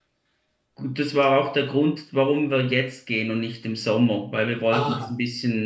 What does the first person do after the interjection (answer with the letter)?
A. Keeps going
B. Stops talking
A